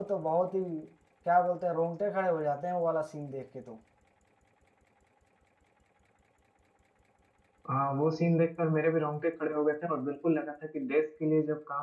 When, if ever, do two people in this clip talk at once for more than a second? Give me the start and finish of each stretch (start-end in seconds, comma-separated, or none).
none